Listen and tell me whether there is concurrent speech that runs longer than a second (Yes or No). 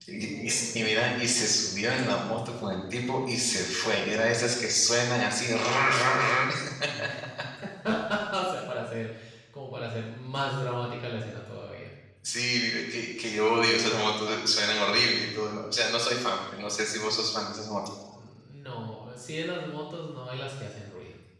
Yes